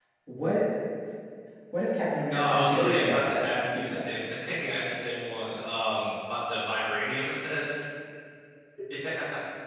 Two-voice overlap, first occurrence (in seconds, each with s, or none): 2.3 s